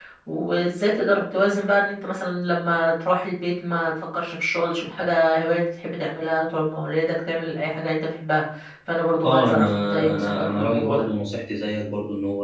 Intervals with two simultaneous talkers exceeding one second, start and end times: 9.2-11.1

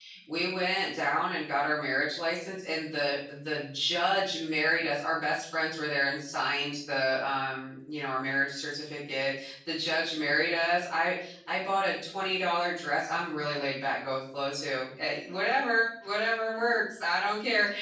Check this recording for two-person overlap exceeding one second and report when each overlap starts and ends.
none

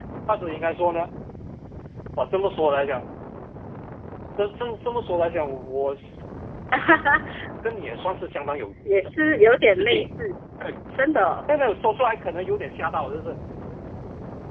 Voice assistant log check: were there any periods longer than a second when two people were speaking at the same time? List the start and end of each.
none

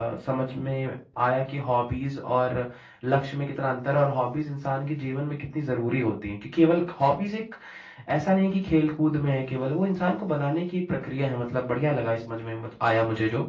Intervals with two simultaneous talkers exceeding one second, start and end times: none

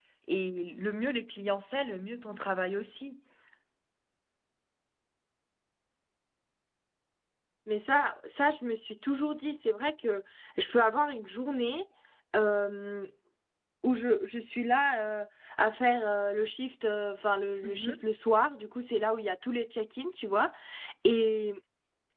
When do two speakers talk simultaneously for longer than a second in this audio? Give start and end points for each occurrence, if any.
none

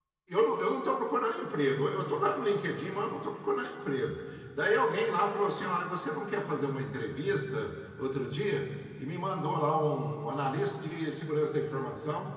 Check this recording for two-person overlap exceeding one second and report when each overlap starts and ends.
none

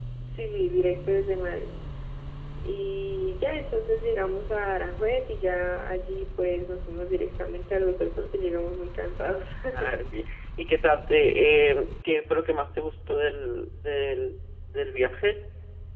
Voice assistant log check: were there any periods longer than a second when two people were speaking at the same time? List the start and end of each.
none

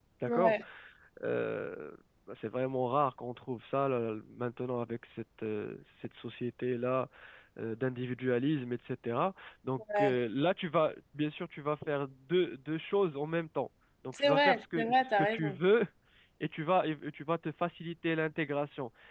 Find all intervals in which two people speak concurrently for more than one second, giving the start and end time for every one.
14.1-15.6

